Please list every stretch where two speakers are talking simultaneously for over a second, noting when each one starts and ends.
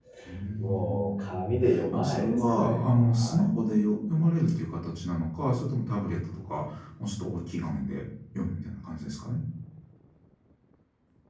0.6-3.5

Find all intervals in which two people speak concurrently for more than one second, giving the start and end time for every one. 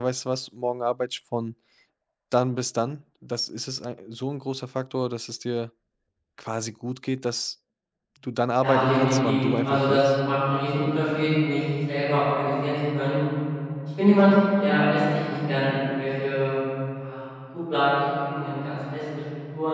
8.6-10.0

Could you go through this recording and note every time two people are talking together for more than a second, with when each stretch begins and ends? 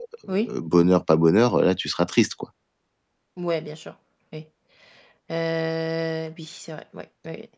none

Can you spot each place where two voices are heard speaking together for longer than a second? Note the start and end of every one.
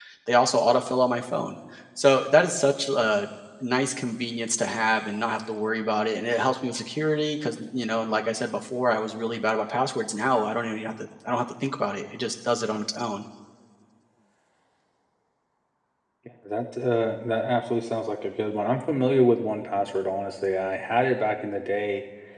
none

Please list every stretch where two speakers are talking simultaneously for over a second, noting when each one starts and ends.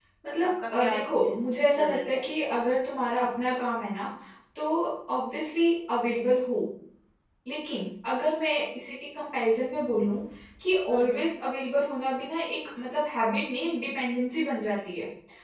0.8-2.2

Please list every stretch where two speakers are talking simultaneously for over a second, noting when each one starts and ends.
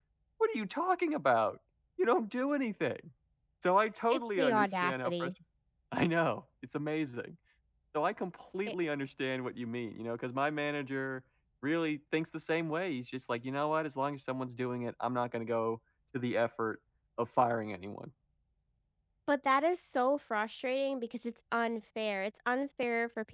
4.1-5.3

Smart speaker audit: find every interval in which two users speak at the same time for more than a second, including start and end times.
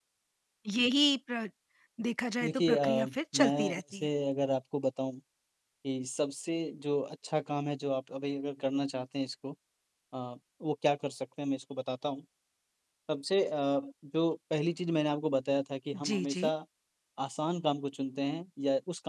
2.4-4.1

